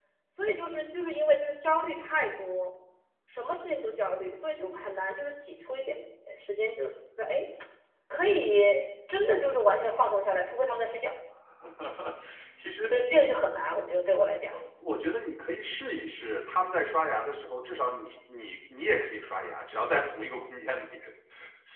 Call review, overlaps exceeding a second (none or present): none